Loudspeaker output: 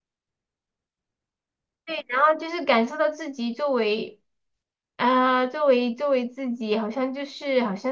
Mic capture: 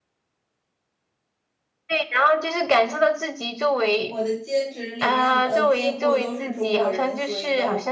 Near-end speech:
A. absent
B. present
B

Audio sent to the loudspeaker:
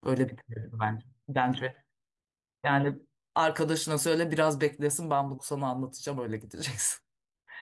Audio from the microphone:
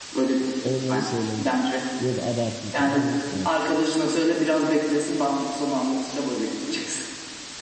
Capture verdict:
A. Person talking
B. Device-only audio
A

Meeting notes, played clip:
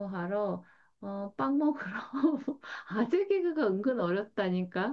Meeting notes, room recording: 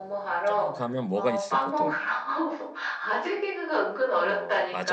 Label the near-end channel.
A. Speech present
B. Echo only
A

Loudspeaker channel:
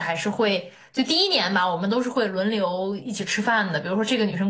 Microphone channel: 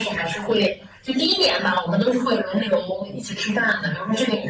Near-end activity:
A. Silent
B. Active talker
A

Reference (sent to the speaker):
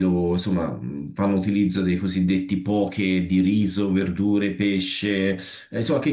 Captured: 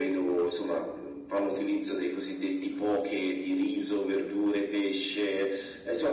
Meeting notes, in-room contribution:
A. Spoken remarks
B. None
B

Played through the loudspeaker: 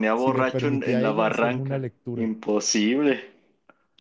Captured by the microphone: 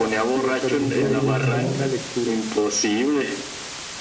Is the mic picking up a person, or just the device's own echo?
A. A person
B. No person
A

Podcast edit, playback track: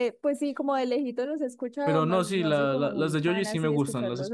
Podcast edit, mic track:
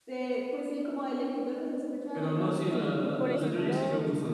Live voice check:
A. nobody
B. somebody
B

